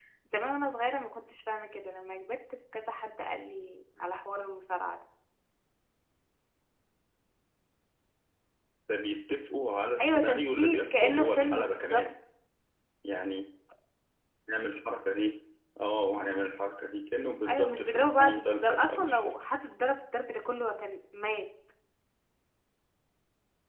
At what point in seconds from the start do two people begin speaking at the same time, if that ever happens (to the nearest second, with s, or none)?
10 s